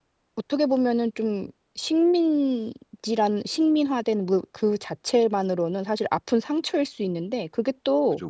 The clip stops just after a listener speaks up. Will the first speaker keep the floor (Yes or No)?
Yes